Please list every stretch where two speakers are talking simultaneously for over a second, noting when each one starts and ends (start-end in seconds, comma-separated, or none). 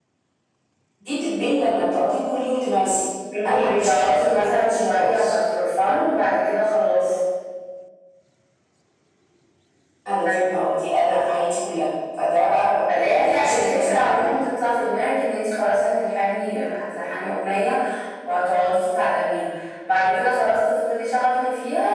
3.5-5.4, 12.9-14.3